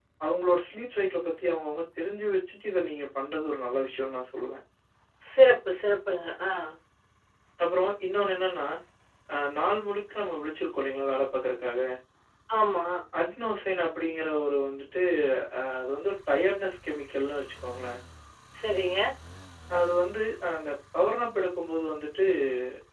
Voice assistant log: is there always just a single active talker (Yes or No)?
Yes